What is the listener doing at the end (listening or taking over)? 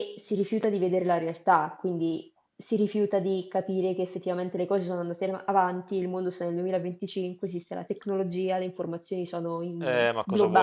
taking over